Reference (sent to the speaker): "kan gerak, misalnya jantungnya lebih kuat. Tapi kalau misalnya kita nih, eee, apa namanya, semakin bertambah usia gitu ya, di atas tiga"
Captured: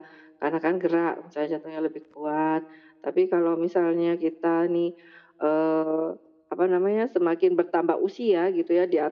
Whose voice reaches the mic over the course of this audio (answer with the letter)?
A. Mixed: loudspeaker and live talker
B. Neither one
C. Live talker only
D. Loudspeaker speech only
D